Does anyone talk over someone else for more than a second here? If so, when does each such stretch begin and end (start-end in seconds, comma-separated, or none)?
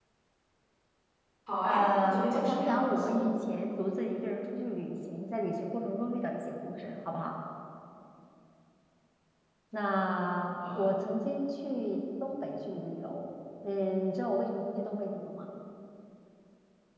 1.6-3.3